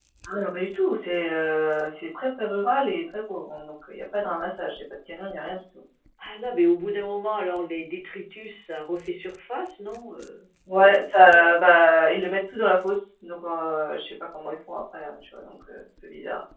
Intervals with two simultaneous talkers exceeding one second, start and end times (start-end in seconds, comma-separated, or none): none